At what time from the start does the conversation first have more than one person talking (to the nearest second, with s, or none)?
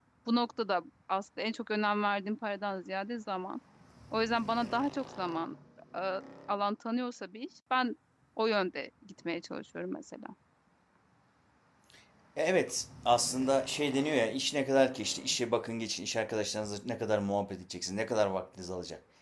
none